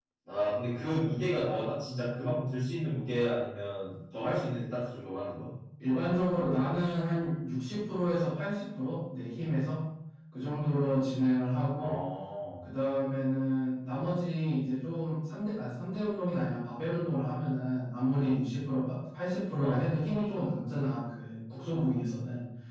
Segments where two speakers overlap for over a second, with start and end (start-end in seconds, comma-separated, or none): none